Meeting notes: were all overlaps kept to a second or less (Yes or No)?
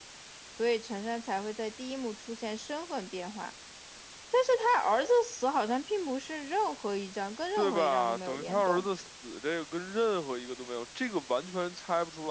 No